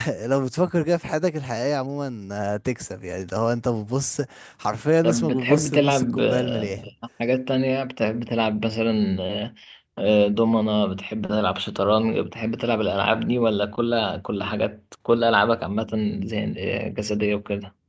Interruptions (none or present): present